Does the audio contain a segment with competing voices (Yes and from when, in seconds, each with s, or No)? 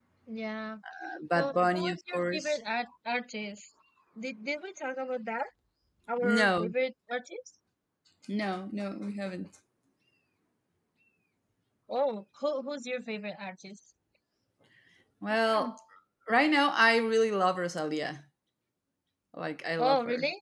Yes, from 1.4 s